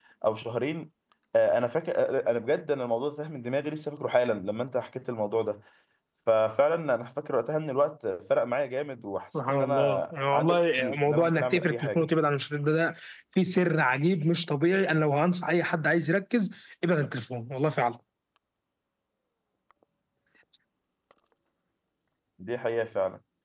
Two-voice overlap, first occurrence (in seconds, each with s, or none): 9.3 s